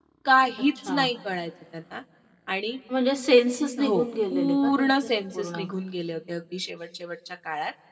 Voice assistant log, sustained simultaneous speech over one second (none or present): present